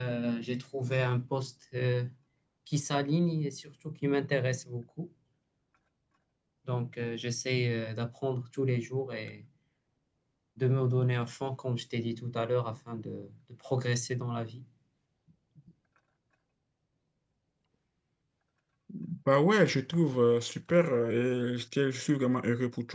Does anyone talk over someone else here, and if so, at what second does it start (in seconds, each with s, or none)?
none